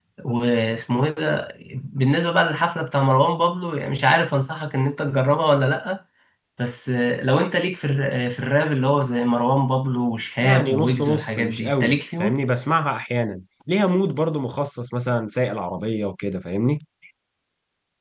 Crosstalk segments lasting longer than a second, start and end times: 10.4-12.4

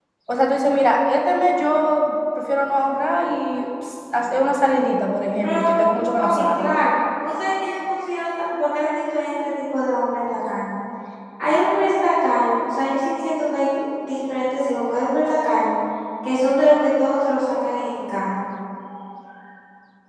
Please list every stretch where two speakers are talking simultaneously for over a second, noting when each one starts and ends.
none

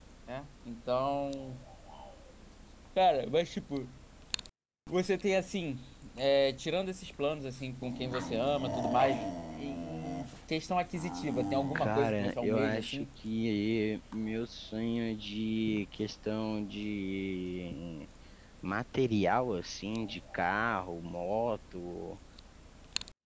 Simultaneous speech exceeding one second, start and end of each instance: 11.8-13.1

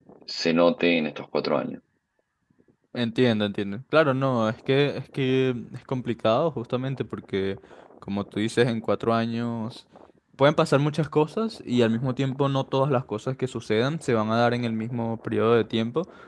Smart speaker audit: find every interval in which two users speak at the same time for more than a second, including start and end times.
none

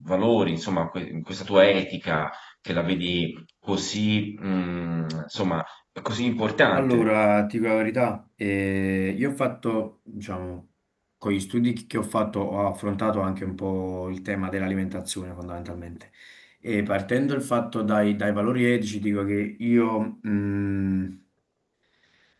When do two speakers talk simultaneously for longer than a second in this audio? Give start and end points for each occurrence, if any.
none

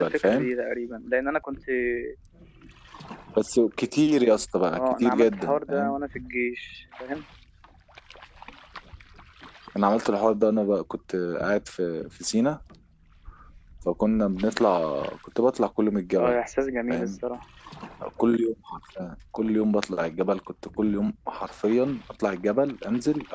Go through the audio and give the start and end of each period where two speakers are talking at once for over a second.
4.7-6.0

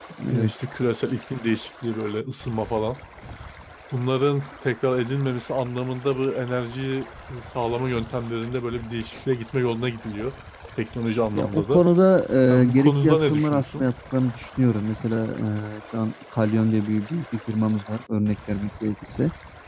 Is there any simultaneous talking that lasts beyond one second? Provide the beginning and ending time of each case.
12.6-13.8

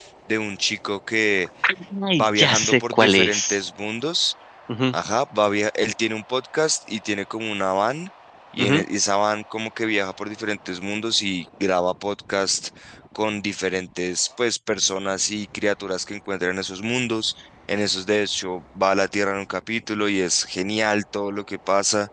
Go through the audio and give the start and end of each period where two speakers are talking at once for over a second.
2.1-3.6

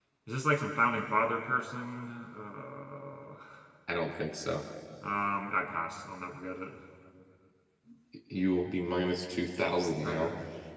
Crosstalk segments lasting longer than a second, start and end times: none

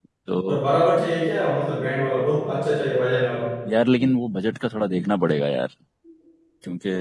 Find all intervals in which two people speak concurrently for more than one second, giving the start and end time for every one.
none

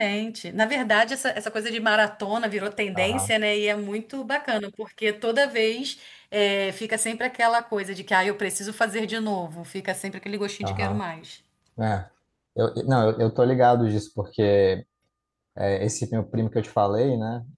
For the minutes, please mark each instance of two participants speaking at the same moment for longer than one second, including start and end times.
none

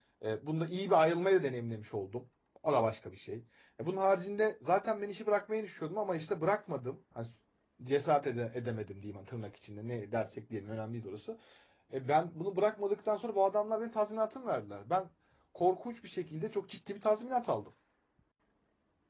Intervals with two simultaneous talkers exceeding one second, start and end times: none

